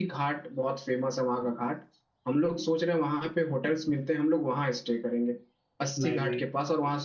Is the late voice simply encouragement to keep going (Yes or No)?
Yes